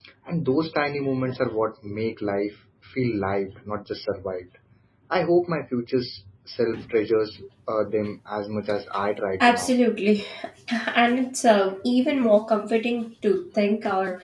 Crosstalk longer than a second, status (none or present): none